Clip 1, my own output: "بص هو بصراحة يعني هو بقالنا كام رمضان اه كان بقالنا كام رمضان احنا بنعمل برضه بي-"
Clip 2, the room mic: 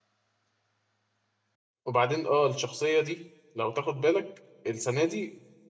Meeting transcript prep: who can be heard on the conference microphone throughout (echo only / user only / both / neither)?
user only